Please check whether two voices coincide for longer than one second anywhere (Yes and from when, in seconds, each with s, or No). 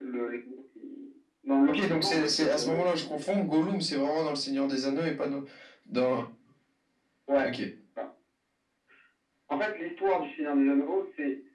Yes, from 1.7 s